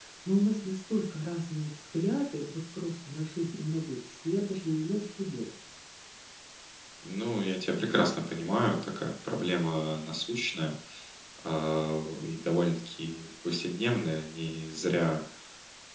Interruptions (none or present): none